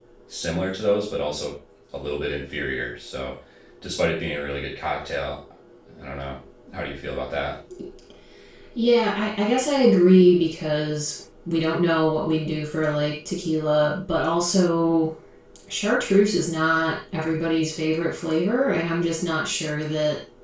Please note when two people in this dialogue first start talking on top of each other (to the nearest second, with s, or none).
none